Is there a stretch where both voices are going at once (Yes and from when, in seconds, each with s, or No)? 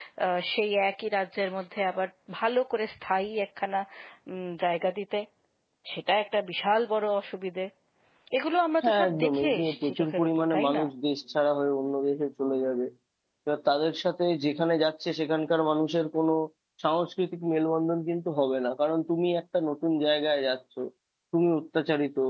Yes, from 8.8 s